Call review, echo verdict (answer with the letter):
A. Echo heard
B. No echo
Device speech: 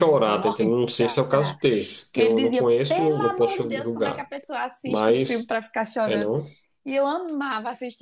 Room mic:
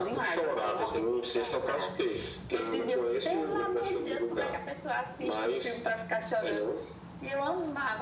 A